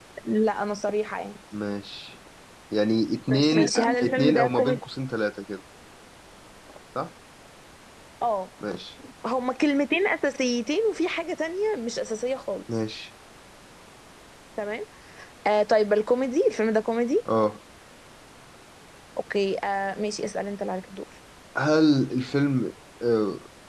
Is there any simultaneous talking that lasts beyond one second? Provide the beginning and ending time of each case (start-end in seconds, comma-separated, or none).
3.5-4.8